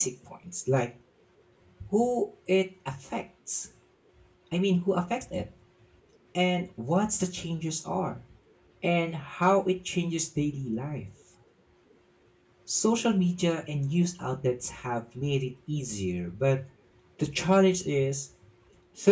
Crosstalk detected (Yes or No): No